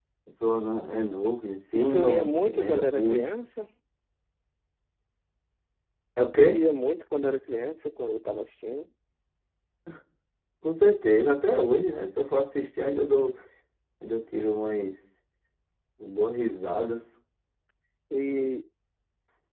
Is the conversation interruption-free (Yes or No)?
No